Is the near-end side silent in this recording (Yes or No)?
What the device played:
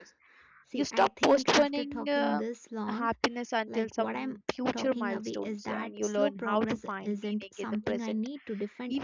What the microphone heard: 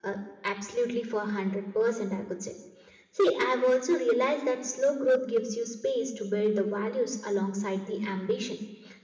No